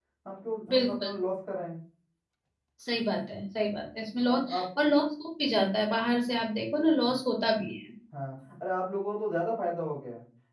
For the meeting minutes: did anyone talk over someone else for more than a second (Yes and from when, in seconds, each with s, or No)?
No